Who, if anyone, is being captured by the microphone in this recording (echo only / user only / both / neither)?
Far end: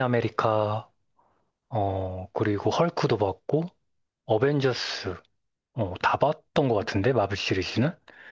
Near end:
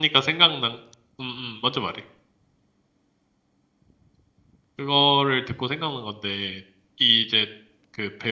user only